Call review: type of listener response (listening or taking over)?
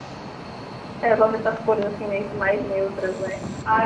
taking over